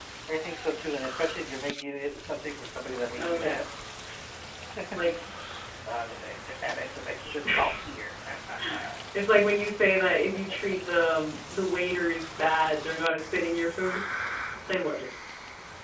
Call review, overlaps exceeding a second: none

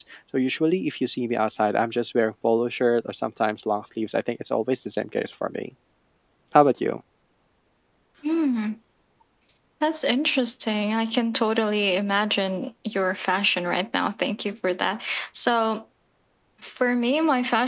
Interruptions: none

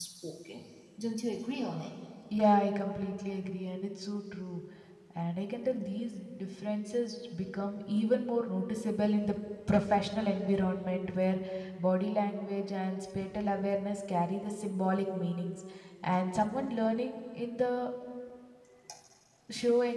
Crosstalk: none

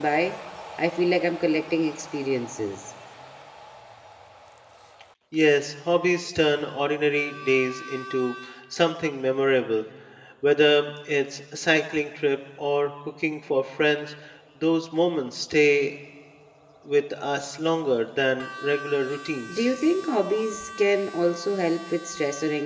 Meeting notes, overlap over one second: none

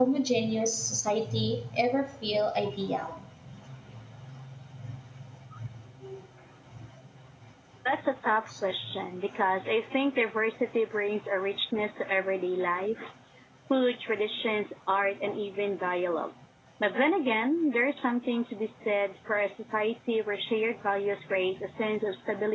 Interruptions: none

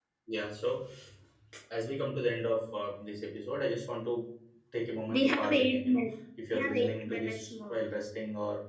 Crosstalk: present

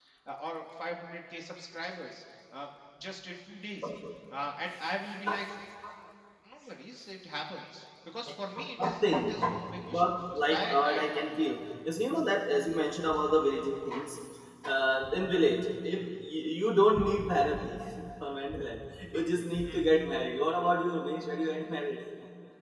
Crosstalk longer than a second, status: present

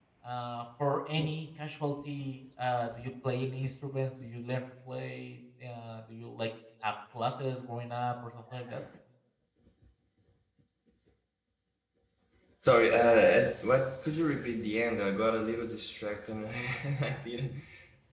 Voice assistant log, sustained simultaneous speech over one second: none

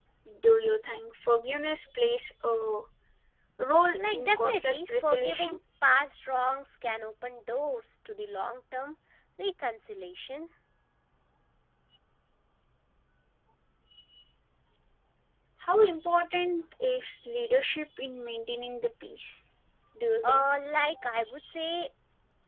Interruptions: present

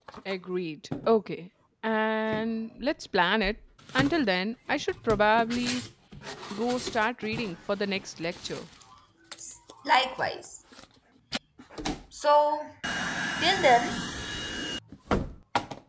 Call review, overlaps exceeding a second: none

